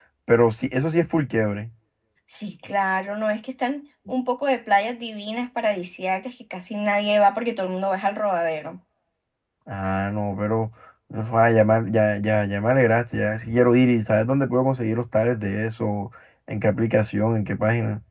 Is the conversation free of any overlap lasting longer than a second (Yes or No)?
Yes